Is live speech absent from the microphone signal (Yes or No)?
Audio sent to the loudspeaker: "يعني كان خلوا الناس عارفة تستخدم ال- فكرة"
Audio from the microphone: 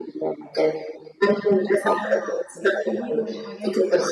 No